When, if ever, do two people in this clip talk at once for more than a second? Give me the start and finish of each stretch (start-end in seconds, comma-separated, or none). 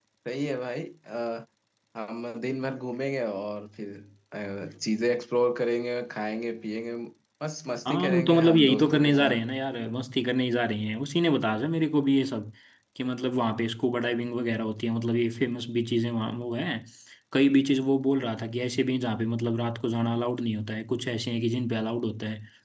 7.8-9.4